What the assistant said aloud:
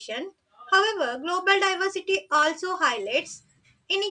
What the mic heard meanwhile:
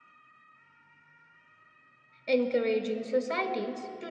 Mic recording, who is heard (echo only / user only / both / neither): user only